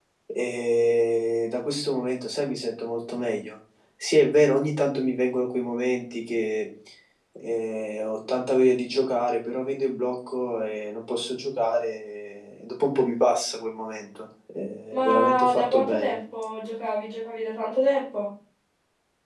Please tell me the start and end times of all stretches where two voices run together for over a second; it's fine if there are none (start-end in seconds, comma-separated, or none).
14.9-16.1